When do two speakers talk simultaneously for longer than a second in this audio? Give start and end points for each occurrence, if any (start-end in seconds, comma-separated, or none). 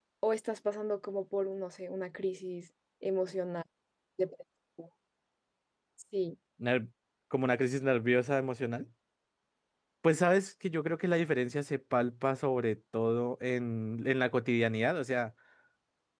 none